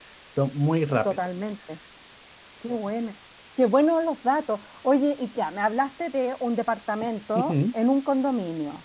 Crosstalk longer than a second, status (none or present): none